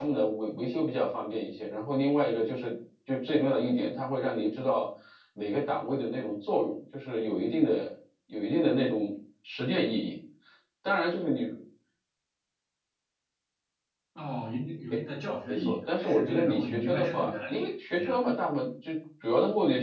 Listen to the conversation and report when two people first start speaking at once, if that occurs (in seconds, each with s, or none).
15.5 s